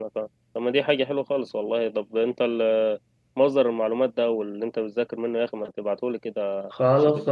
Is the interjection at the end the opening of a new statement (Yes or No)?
Yes